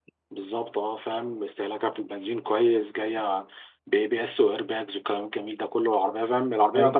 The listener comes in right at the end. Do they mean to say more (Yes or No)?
No